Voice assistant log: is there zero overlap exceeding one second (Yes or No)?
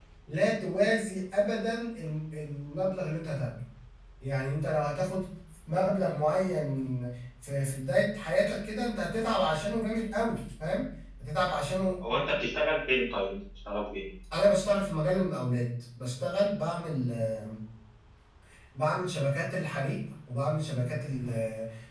Yes